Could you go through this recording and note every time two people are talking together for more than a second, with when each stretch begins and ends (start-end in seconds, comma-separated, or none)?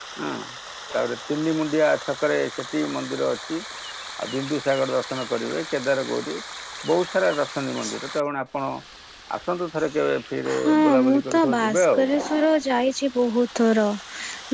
10.5-12.1